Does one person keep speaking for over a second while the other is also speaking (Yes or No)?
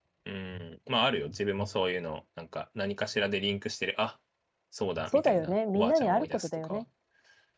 Yes